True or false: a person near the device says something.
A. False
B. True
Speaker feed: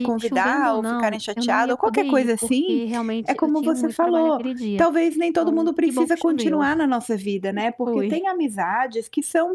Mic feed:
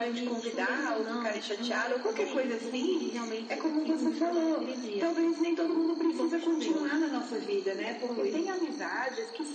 A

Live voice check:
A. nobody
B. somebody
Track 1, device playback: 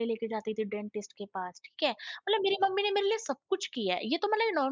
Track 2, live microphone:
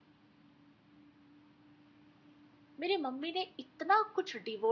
B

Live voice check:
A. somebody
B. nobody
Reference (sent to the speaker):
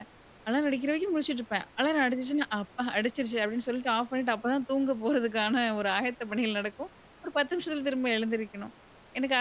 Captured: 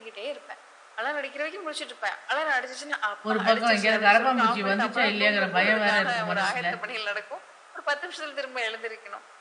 A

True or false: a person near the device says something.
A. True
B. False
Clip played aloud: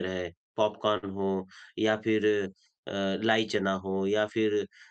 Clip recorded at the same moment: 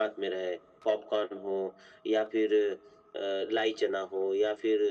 B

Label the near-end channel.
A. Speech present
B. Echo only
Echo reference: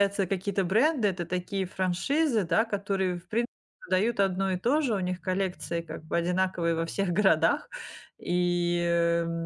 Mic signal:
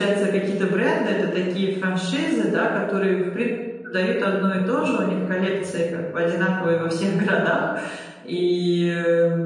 B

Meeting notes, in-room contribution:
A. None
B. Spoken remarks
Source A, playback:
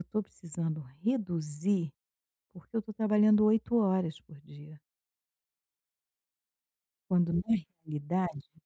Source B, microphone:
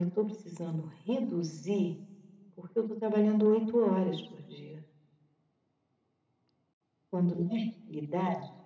A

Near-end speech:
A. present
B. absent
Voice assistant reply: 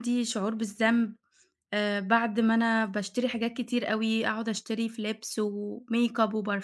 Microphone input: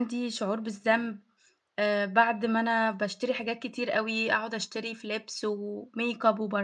B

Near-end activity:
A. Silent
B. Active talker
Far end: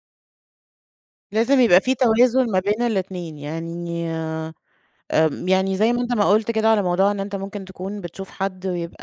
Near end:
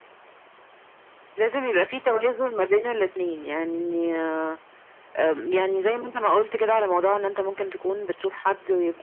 A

